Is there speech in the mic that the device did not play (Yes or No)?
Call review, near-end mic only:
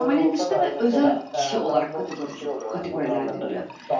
Yes